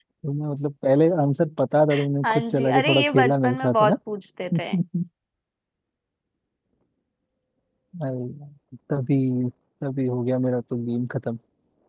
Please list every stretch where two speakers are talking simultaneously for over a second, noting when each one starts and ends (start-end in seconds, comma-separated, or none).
2.2-4.0